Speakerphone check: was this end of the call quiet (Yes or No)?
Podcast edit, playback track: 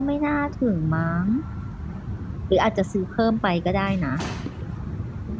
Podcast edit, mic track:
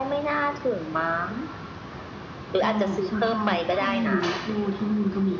No